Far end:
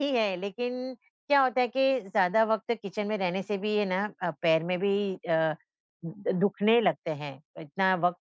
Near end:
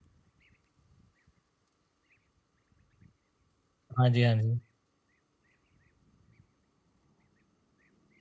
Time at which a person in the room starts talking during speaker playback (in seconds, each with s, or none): 4.0 s